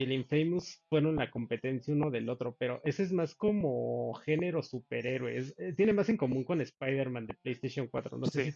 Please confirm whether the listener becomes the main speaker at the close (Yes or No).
Yes